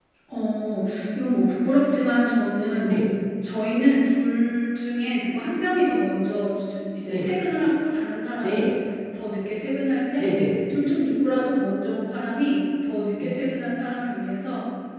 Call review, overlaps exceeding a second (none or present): none